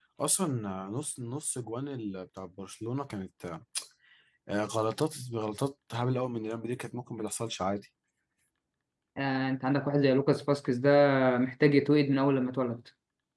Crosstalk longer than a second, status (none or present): none